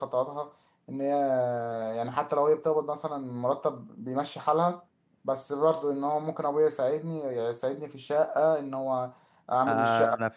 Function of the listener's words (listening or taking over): taking over